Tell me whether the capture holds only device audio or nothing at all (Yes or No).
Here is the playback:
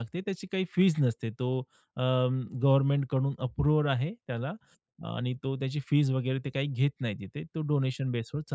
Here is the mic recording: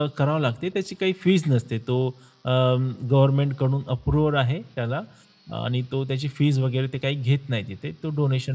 Yes